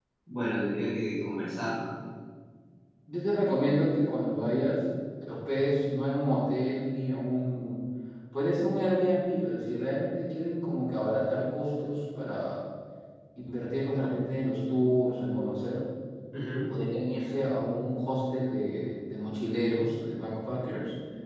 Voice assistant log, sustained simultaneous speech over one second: none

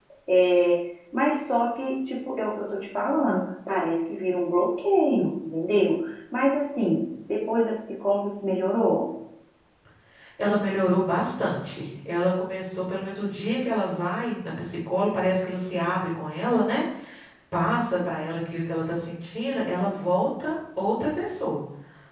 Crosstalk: none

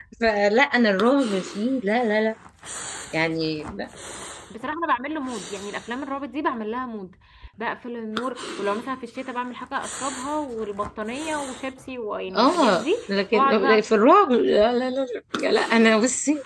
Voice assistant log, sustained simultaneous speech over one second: present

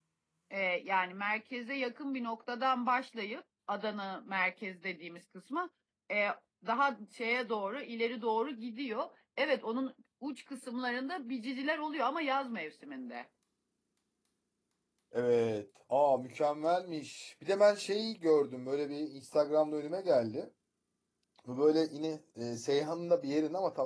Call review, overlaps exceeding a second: none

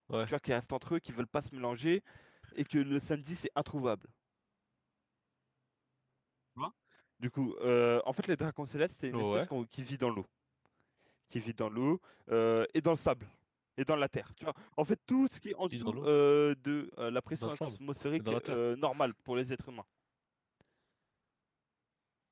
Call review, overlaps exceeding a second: none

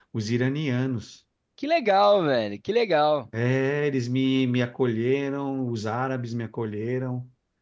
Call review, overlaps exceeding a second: none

